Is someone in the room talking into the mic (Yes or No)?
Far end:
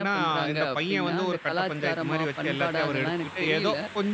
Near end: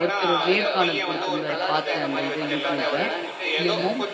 Yes